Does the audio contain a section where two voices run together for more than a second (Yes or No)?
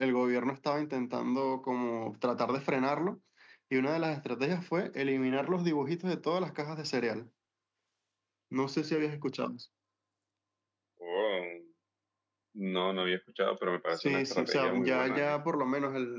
Yes